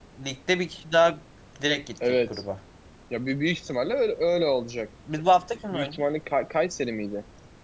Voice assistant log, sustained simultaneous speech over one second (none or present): none